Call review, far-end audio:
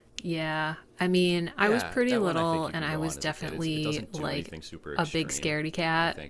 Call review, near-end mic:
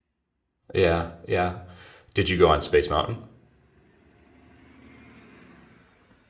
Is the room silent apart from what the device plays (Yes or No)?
No